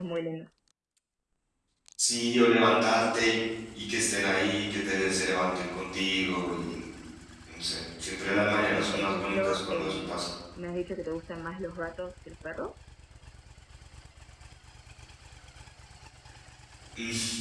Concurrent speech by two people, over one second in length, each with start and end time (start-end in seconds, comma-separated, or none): 8.7-10.2